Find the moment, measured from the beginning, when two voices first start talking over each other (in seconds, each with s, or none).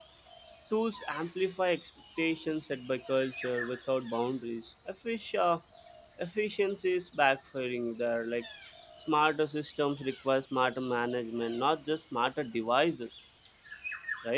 none